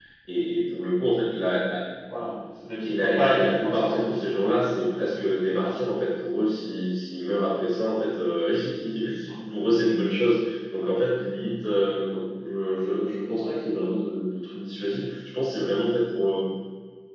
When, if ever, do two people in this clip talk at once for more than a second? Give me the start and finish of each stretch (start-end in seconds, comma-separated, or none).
2.9-5.2